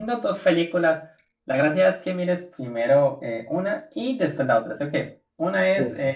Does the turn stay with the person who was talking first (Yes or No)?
Yes